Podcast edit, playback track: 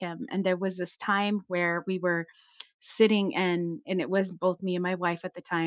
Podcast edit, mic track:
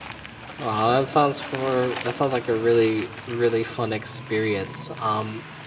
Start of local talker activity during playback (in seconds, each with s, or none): 0.6 s